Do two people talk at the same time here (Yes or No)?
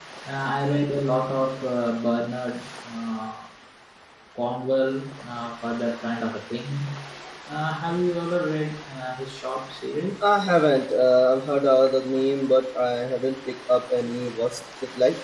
No